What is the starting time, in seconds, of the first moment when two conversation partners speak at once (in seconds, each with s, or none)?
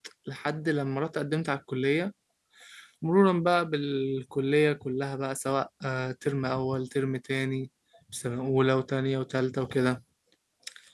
none